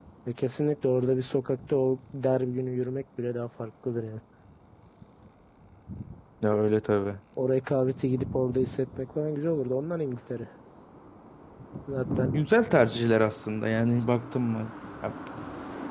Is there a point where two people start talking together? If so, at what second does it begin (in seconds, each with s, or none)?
none